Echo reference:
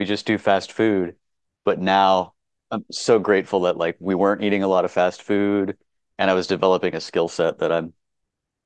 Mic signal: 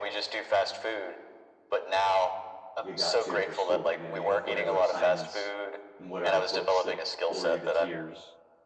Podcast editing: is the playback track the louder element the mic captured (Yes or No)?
Yes